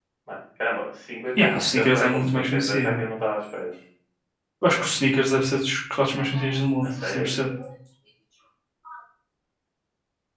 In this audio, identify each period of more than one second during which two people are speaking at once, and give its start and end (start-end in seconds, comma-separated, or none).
1.4-3.0